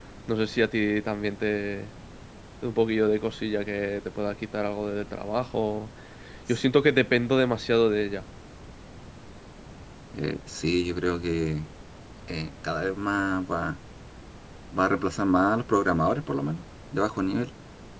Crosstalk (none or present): none